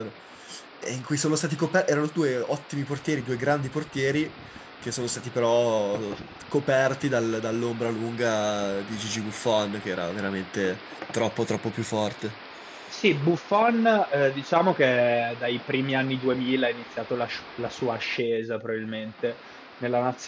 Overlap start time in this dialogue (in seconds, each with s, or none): none